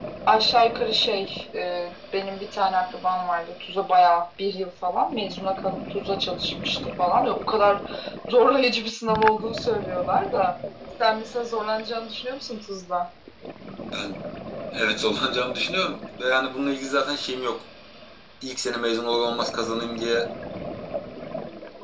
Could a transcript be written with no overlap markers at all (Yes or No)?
Yes